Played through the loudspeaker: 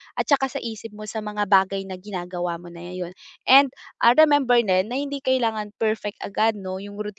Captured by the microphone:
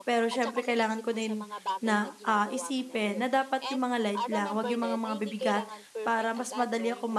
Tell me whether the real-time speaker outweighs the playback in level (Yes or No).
Yes